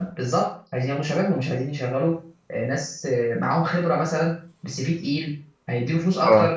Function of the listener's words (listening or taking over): listening